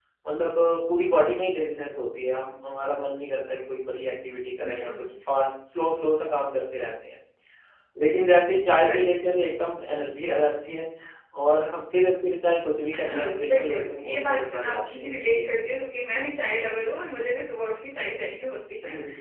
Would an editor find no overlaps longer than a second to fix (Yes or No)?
No